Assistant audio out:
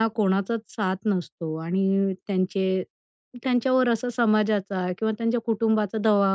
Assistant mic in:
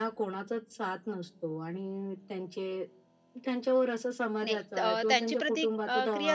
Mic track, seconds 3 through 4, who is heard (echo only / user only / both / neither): echo only